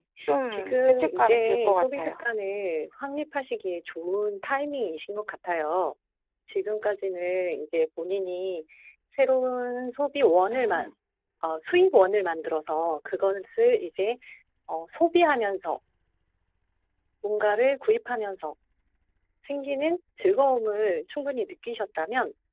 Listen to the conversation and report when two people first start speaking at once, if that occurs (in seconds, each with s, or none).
0.5 s